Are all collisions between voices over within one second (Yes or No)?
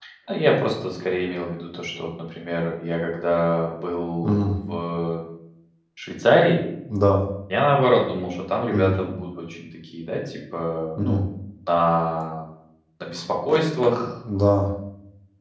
Yes